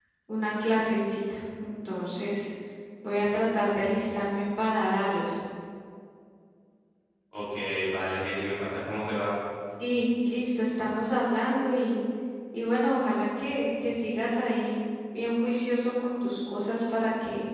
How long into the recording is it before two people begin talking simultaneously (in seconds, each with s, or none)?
none